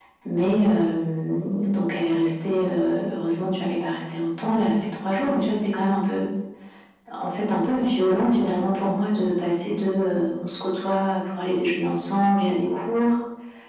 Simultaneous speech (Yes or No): No